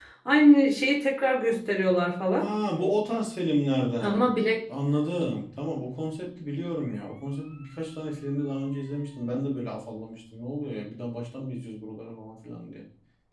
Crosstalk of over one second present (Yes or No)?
No